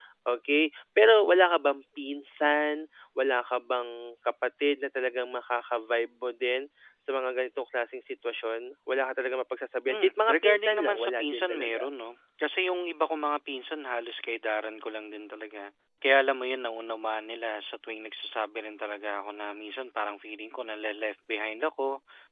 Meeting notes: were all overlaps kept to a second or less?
No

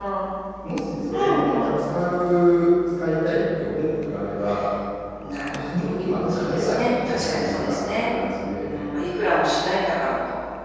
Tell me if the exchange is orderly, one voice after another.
No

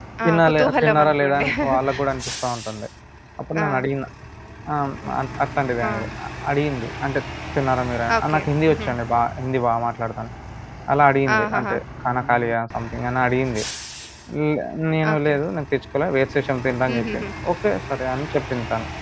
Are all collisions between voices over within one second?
No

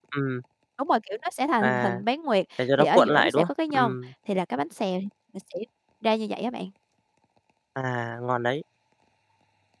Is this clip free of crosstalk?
No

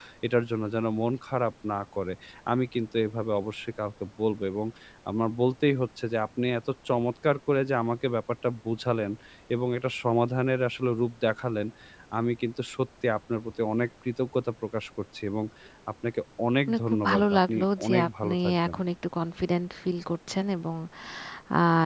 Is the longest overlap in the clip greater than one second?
Yes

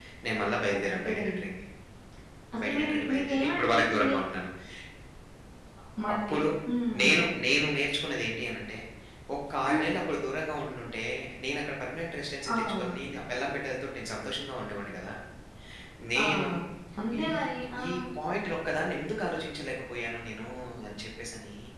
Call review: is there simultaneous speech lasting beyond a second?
Yes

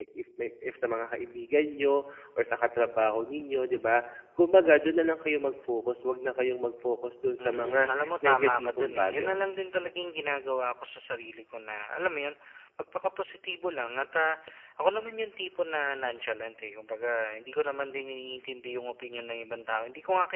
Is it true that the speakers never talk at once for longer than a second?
No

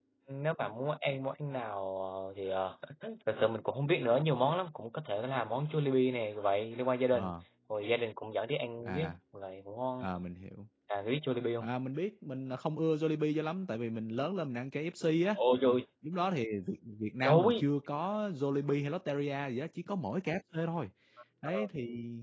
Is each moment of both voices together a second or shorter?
Yes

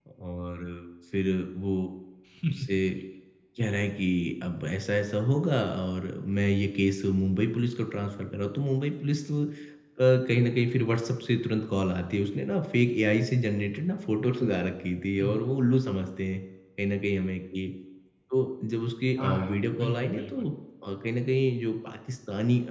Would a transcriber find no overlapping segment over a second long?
No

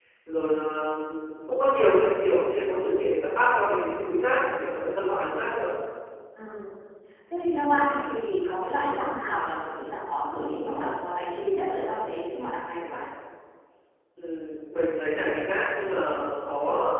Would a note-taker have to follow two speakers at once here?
No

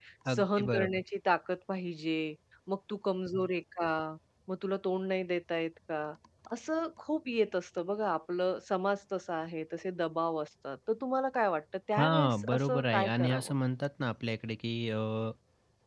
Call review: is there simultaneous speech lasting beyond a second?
Yes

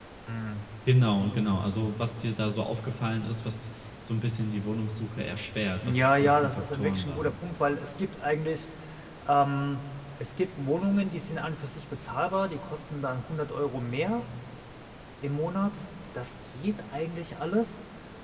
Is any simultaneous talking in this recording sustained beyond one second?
Yes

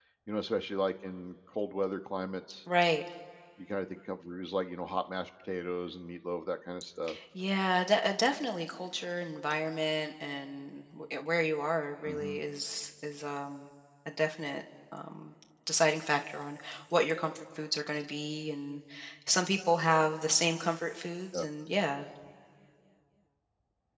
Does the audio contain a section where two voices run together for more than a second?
No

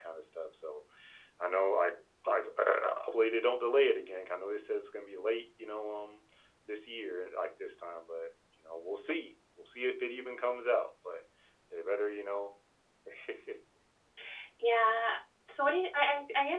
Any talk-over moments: No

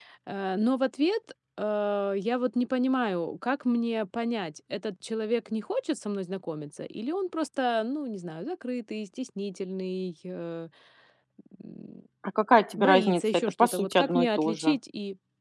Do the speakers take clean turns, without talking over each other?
No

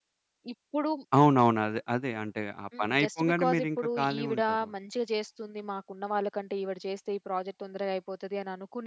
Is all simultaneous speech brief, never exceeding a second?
No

